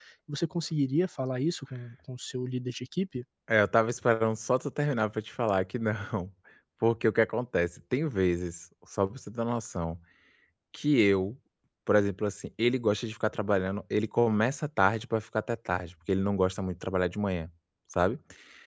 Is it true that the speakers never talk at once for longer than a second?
Yes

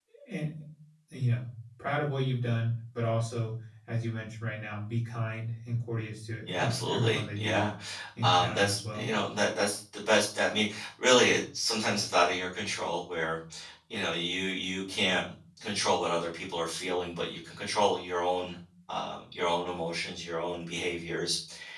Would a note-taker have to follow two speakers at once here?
Yes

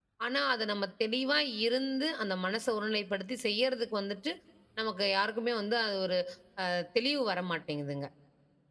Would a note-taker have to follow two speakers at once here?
No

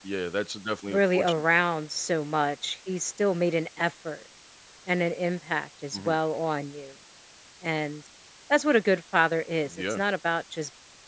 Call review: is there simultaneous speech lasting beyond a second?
No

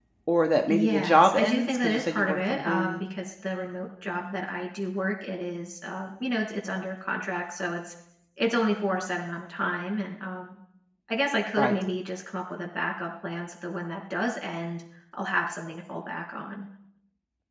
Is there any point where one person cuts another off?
Yes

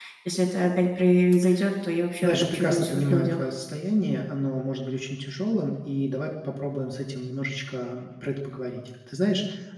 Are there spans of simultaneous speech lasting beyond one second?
Yes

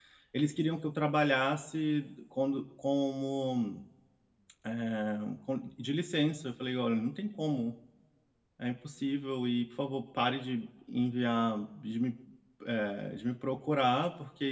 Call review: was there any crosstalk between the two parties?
No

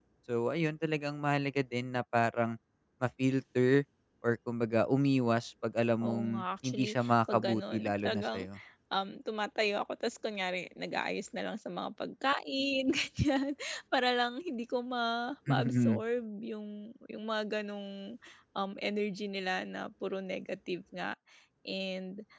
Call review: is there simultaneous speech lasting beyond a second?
Yes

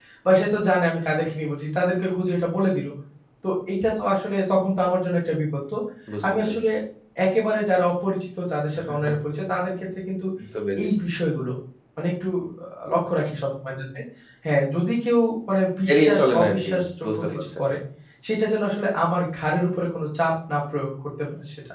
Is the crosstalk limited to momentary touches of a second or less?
No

